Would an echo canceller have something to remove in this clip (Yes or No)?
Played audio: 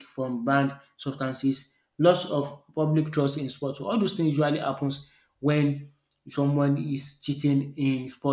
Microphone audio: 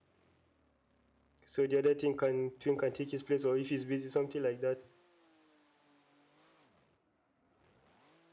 No